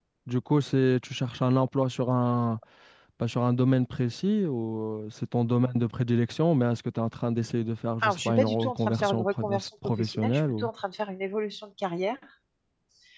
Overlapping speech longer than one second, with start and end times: 8.0-10.7

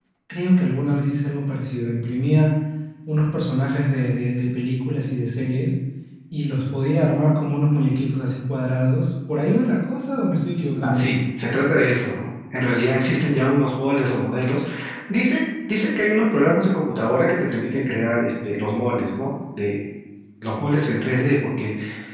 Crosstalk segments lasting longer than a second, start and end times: none

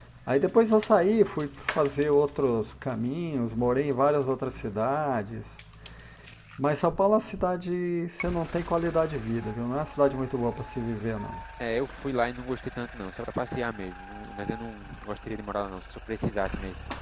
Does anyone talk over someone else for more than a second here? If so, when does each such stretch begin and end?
none

